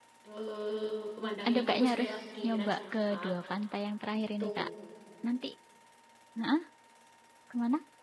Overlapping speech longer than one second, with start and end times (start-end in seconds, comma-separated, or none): 1.5-3.3